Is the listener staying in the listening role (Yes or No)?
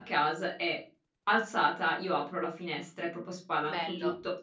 Yes